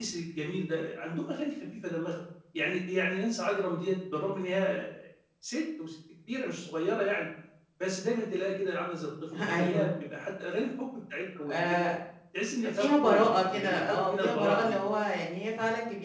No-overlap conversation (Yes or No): No